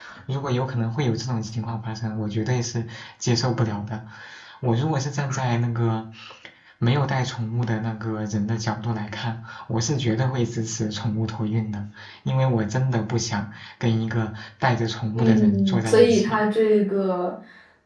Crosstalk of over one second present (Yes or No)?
Yes